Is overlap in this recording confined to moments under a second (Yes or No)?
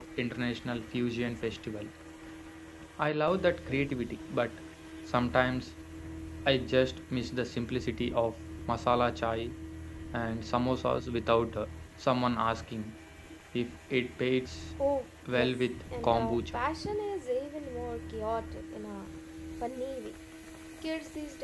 No